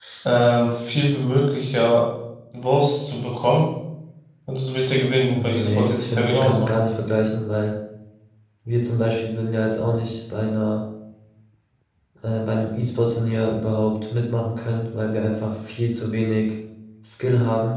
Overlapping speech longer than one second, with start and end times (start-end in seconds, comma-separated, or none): 5.3-6.7